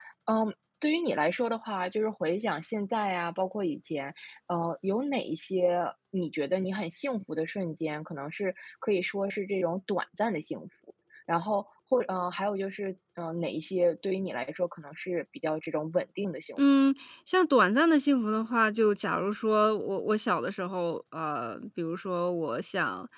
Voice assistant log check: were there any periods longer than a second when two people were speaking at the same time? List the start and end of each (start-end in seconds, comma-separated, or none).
none